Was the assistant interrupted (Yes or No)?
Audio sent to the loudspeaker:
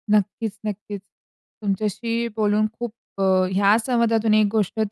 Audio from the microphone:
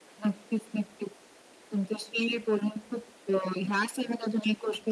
No